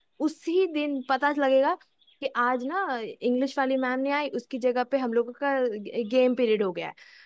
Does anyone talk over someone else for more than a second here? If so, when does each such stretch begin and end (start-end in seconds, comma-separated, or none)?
none